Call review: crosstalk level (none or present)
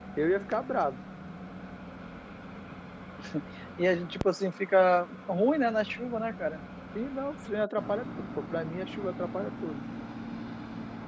none